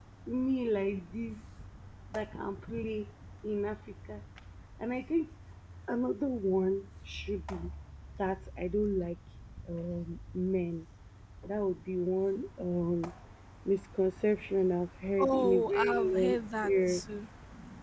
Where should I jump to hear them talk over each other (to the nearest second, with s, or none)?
15 s